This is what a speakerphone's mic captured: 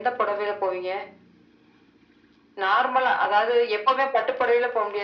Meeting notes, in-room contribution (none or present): none